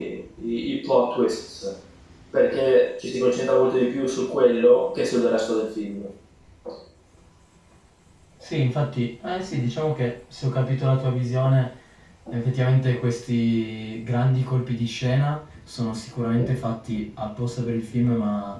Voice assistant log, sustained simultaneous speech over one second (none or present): none